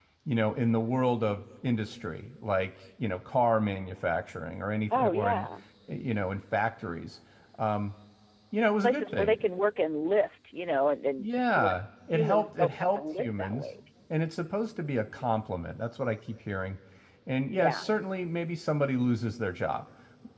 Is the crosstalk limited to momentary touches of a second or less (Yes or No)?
No